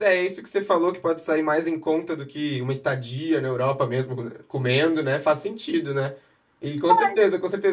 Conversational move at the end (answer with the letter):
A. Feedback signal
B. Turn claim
A